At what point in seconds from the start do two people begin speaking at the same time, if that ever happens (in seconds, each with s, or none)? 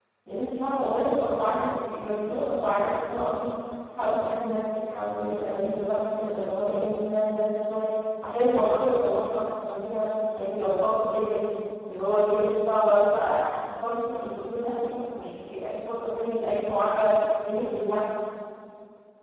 none